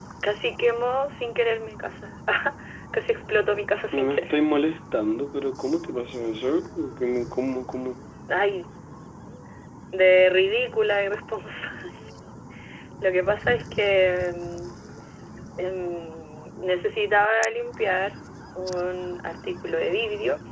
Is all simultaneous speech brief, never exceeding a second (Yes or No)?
Yes